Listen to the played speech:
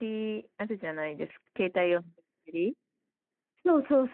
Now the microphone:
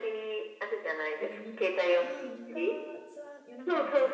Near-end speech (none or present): present